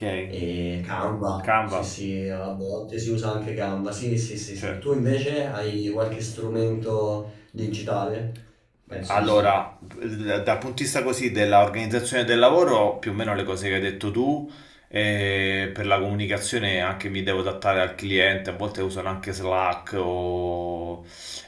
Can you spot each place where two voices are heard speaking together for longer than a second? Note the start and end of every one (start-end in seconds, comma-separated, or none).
none